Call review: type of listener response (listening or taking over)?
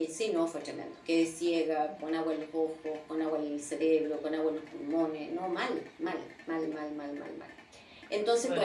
taking over